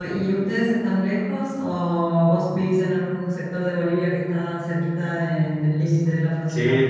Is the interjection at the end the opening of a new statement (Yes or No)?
Yes